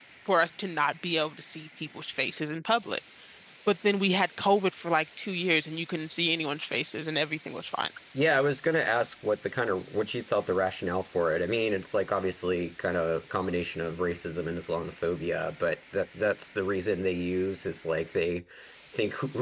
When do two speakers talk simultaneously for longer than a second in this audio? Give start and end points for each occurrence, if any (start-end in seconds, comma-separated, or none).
none